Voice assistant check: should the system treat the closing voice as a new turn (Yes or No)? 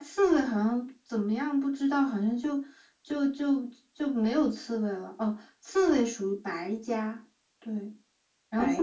No